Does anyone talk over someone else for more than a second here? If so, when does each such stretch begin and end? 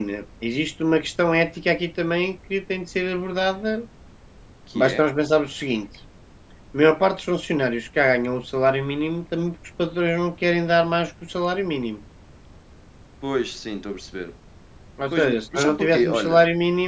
15.1-16.4

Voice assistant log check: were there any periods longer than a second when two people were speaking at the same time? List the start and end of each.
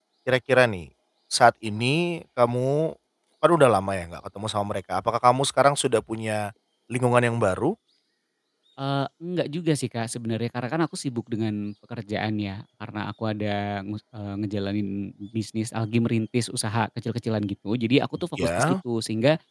none

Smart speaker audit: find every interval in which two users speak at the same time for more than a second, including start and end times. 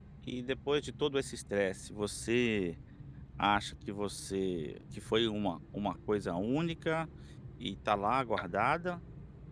none

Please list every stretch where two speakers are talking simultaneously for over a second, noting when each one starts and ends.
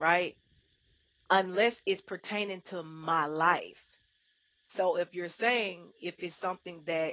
none

